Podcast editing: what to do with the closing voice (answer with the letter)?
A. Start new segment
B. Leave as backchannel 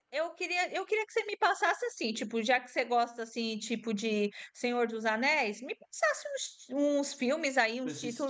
B